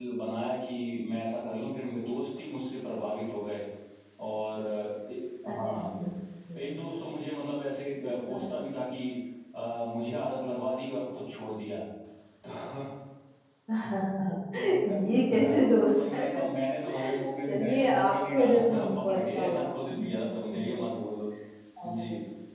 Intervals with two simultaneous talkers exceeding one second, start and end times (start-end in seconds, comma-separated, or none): 17.5-20.1